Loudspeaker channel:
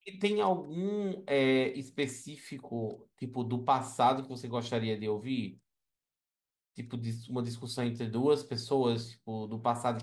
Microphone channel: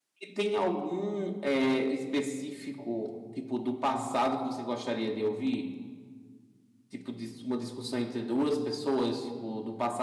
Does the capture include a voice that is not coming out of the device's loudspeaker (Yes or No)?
No